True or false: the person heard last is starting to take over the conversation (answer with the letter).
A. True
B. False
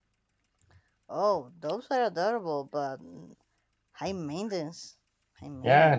A